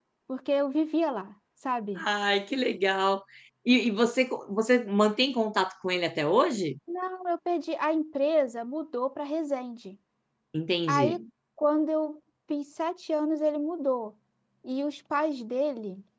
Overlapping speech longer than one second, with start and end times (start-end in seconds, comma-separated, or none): none